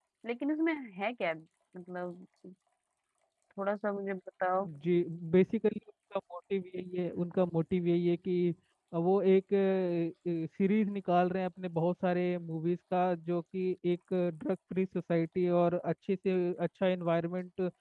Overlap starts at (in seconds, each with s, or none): none